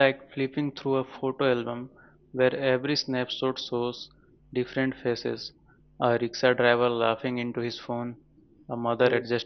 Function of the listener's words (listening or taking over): listening